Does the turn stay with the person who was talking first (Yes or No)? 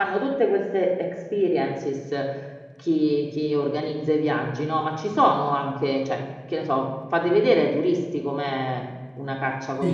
No